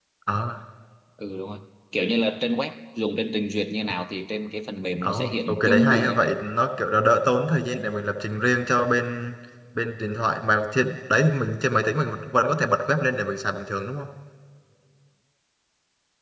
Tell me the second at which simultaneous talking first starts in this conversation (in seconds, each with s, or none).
5.0 s